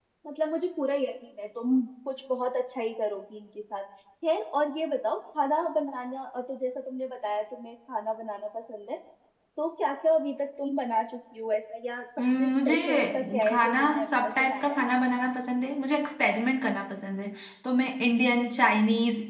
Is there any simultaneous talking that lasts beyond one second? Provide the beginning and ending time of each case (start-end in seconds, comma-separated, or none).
12.2-14.8